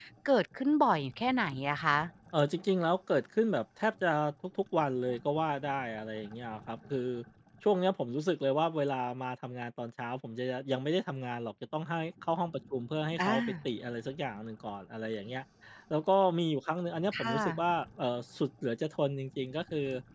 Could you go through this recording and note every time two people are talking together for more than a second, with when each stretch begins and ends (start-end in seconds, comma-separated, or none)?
none